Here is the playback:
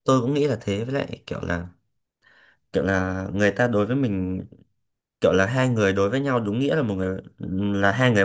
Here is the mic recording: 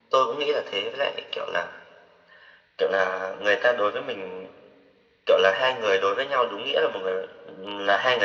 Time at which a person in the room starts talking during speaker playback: none

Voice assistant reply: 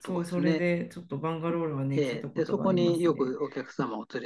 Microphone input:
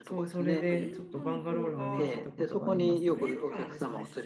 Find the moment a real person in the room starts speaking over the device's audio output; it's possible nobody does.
1 s

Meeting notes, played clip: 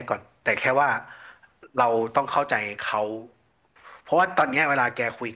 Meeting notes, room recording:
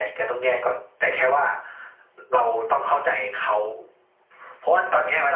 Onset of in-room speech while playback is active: none

